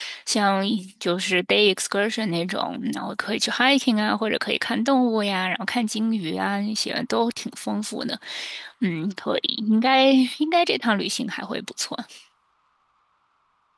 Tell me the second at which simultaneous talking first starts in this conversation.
none

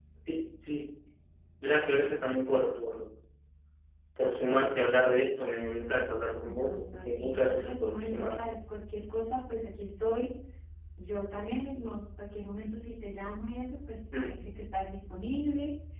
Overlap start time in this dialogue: 6.4 s

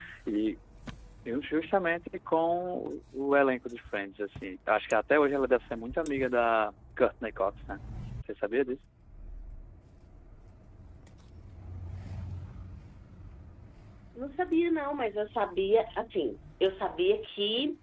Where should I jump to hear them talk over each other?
none

